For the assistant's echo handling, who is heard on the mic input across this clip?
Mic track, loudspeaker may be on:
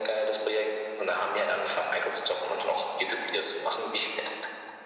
echo only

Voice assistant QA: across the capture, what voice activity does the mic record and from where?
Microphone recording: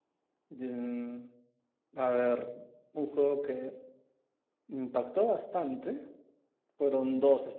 user only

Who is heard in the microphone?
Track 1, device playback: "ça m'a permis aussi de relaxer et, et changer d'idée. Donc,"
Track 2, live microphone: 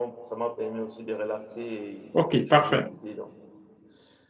both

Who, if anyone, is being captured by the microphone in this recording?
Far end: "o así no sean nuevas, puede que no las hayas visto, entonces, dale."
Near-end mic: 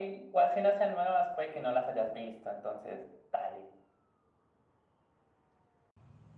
echo only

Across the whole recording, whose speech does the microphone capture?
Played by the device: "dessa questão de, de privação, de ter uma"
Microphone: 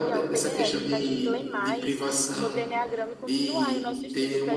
both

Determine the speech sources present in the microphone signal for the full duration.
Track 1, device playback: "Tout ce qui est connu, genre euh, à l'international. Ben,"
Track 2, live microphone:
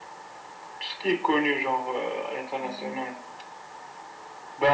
both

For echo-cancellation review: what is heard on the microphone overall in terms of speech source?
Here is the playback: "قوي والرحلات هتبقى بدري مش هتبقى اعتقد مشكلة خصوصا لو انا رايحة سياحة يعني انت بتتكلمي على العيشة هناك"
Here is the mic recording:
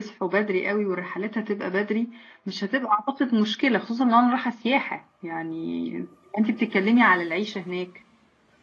echo only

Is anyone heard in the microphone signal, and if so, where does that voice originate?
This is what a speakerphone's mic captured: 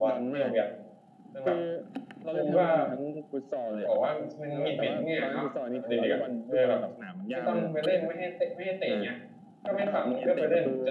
both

